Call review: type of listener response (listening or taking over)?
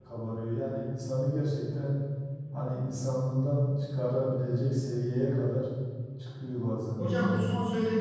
taking over